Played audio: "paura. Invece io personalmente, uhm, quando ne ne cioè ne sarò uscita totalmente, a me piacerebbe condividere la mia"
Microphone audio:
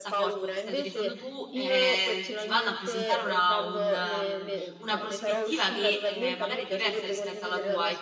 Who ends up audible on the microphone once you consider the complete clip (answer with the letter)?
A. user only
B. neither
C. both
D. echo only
C